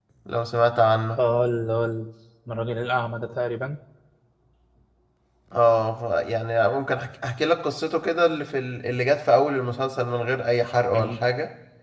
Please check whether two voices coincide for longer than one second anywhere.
No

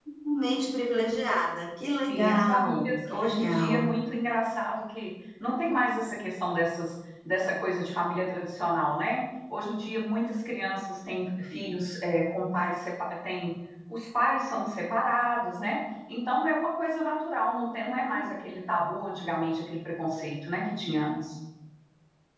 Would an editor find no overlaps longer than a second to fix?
No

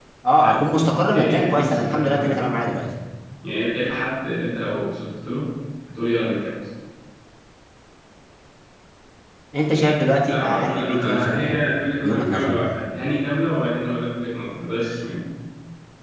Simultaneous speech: Yes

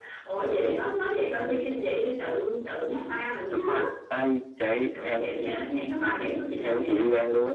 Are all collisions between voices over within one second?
Yes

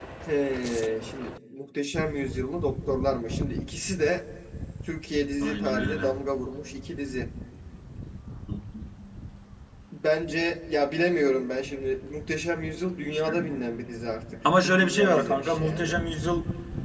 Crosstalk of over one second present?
Yes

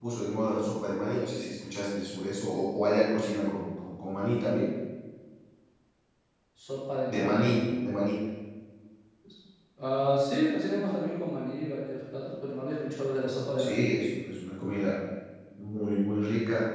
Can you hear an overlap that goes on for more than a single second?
No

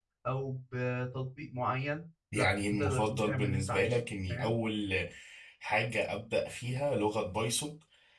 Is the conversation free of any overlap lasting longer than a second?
No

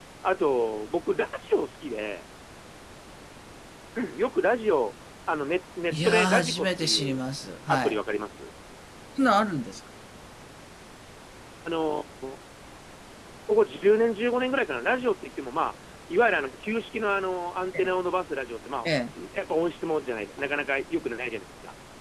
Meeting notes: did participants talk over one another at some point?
Yes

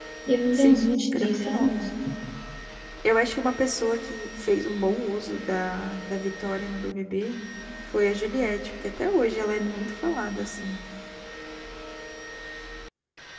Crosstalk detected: Yes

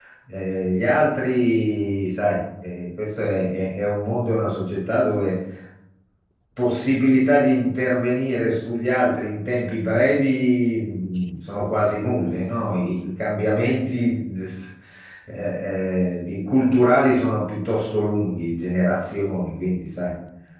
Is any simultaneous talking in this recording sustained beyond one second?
No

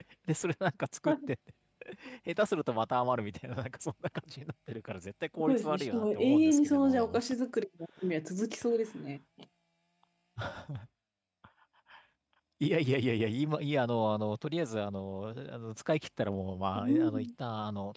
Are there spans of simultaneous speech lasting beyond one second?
Yes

